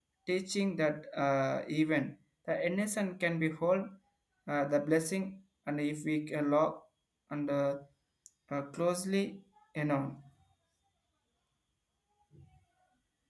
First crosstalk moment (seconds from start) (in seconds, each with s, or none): none